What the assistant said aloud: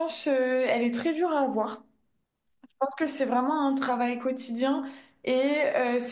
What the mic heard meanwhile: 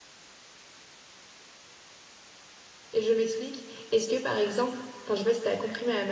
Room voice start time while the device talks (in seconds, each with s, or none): 2.9 s